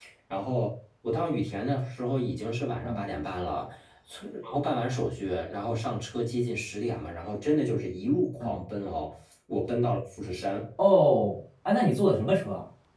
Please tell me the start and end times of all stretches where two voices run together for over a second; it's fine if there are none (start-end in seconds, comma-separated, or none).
none